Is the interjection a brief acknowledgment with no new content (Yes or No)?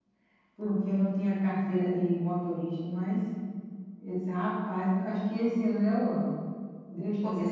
No